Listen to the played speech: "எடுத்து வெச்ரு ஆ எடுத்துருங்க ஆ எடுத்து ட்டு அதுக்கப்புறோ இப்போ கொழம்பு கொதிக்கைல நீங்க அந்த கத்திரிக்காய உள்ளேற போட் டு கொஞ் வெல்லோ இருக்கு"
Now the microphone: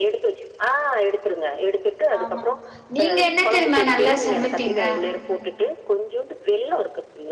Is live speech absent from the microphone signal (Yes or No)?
No